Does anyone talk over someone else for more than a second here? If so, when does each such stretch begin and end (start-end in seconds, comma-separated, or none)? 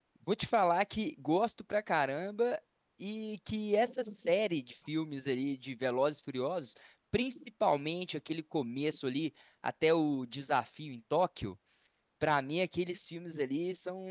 none